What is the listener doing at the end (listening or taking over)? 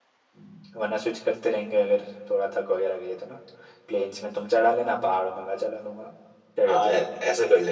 taking over